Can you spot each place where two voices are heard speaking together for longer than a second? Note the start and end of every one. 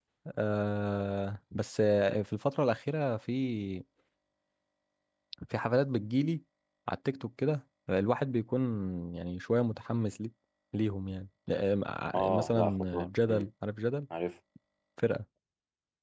12.2-13.5

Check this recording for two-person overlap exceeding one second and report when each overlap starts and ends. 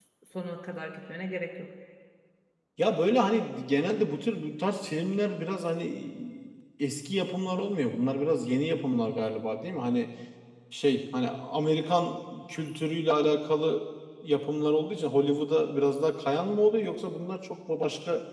none

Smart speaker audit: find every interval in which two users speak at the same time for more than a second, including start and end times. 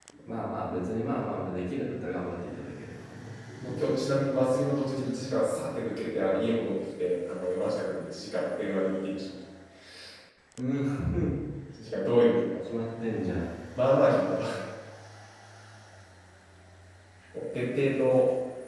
none

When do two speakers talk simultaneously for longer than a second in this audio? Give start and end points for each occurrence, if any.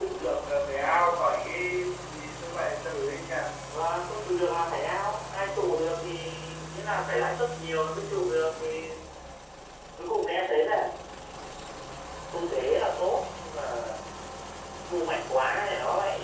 none

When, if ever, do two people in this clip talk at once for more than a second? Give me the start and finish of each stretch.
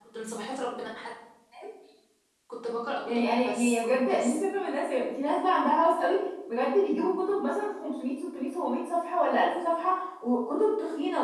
3.0-4.4

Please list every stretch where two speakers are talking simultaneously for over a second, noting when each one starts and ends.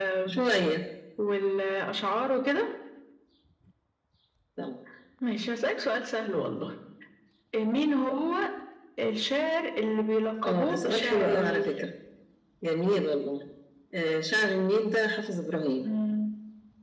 10.4-11.7

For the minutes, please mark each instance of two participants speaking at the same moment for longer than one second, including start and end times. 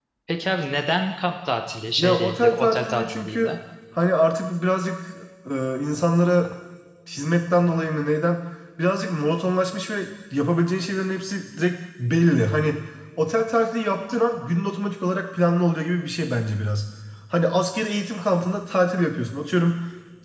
2.0-3.5

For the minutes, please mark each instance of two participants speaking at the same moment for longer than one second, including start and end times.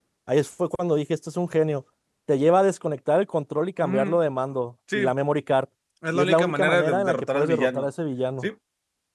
6.1-7.9

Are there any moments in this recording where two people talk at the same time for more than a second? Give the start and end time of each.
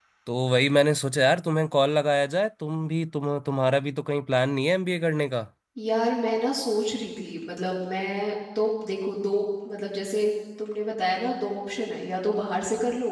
none

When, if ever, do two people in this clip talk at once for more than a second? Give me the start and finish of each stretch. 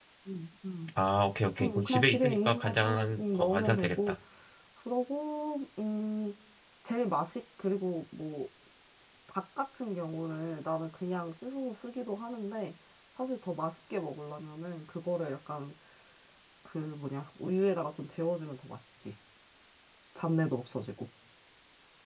1.6-4.2

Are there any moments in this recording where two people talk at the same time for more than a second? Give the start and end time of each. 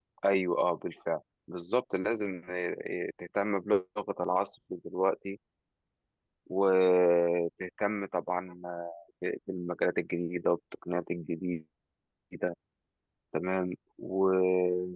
none

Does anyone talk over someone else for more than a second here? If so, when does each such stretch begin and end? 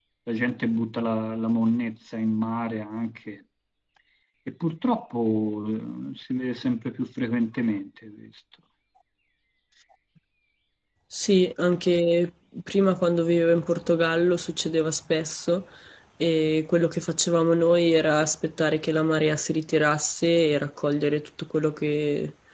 none

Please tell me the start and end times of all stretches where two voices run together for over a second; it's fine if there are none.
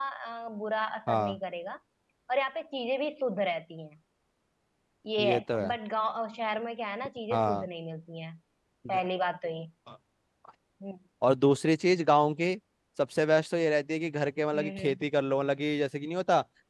none

